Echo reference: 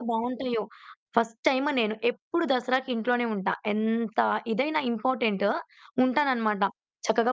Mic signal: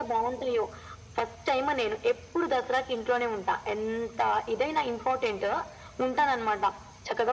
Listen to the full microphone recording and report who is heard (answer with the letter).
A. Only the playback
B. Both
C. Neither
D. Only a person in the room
A